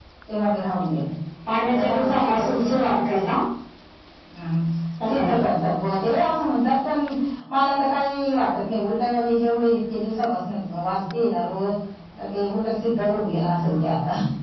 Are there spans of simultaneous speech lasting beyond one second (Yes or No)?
Yes